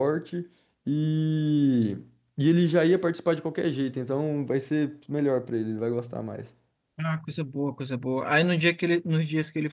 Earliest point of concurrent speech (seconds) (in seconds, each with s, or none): none